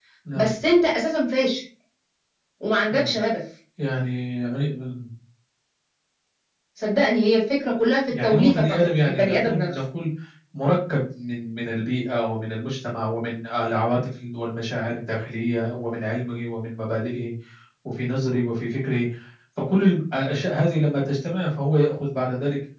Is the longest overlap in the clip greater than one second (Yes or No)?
Yes